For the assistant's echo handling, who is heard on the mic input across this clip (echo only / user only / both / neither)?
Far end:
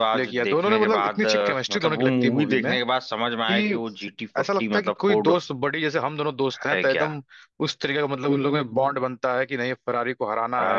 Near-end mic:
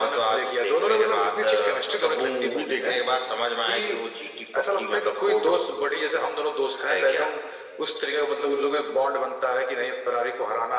echo only